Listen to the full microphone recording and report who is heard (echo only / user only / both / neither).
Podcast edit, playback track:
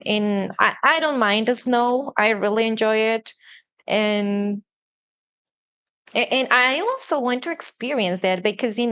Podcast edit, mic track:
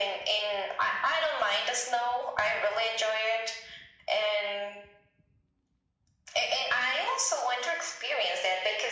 echo only